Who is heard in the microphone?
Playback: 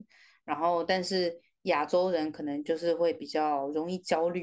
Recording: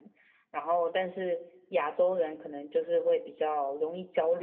echo only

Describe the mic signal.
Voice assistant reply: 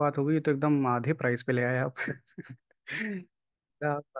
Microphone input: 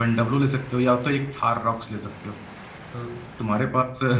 user only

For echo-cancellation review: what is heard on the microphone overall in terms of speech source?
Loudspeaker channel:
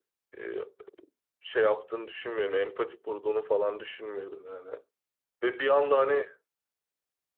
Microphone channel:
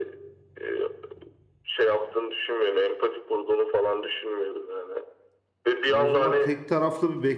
both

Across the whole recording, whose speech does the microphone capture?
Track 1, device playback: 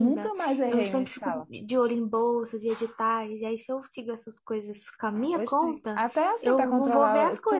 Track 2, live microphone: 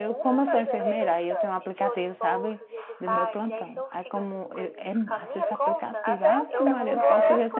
both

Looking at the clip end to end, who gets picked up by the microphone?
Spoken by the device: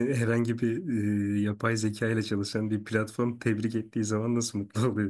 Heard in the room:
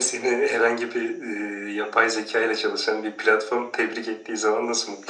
echo only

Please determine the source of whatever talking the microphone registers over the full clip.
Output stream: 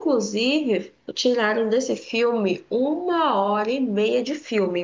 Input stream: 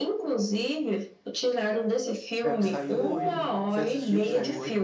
both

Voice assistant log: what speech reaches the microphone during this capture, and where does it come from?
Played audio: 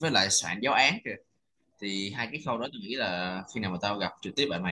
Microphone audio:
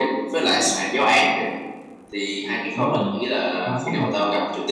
both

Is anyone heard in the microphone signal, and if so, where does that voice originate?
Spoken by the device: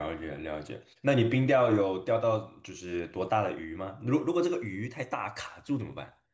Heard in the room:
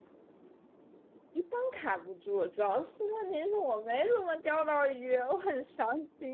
user only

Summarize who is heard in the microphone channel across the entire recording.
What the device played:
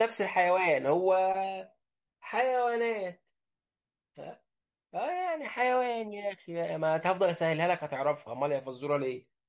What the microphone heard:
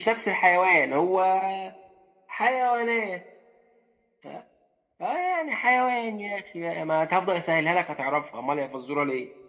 echo only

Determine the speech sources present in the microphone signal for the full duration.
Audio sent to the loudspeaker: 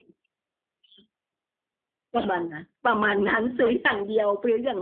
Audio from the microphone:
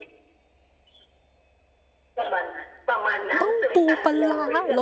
both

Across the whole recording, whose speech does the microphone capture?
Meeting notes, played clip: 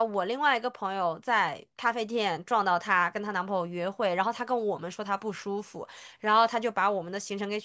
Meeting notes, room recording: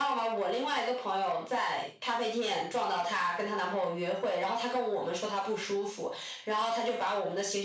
echo only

